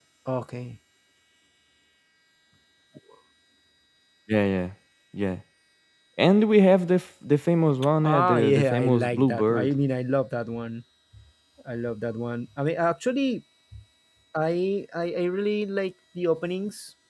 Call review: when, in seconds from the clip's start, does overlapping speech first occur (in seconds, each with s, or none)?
8.0 s